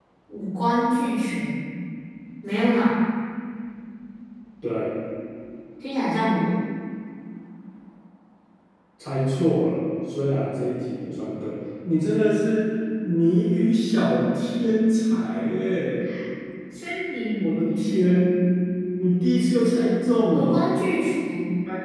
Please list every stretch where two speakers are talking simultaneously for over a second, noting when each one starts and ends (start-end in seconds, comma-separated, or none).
none